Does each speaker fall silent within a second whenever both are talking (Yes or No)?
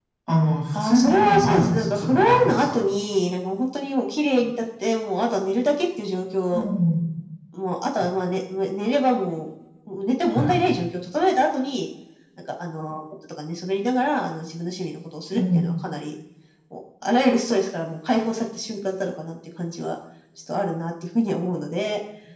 No